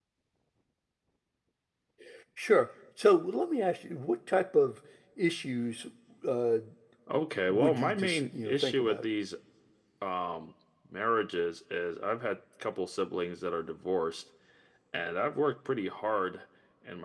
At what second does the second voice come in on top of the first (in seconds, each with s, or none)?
7.5 s